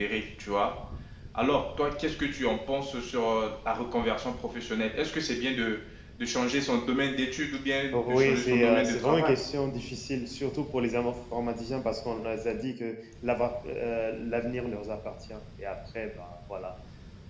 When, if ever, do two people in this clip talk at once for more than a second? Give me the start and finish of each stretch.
7.9-9.3

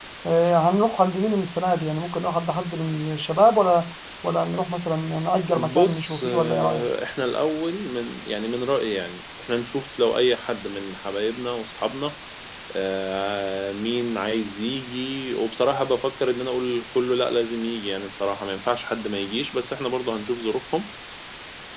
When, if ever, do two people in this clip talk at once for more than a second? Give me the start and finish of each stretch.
5.5-6.9

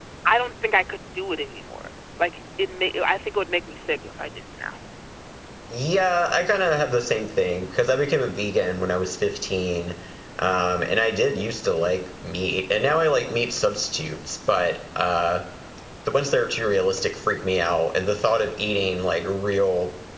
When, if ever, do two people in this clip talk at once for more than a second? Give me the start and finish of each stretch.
none

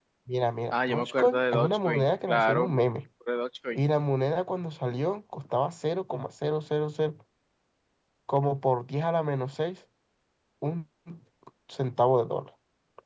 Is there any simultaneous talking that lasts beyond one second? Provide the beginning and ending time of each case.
0.7-2.8

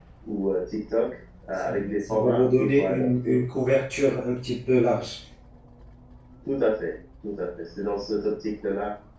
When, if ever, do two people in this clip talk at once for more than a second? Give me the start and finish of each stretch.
1.6-3.4

